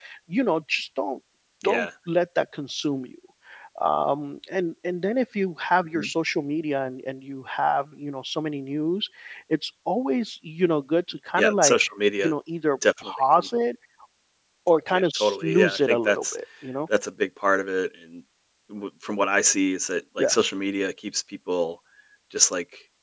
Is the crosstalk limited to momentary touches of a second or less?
No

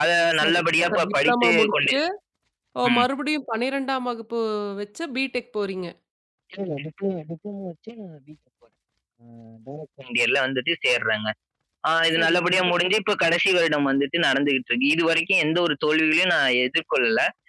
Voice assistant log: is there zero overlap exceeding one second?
No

